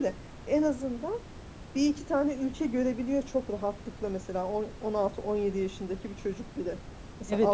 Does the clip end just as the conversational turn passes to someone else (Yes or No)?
Yes